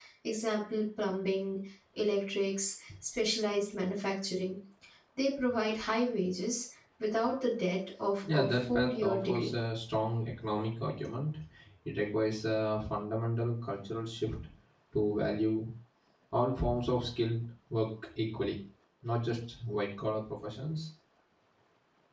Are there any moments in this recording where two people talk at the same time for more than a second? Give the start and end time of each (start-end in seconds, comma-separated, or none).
8.3-9.5